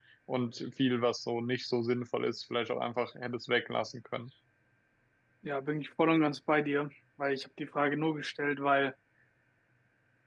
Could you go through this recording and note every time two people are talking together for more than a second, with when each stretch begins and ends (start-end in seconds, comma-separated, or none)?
none